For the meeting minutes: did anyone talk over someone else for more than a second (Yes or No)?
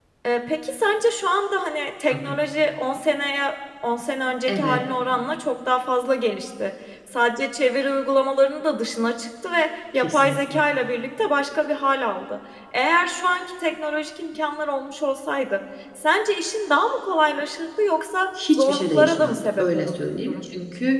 Yes